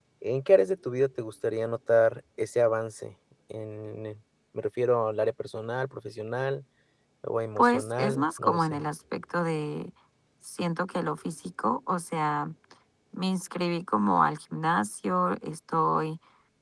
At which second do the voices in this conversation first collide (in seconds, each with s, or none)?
7.6 s